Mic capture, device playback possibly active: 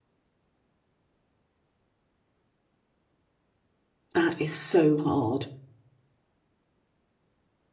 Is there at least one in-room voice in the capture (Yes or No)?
Yes